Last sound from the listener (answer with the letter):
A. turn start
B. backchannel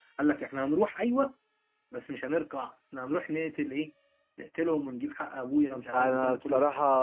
A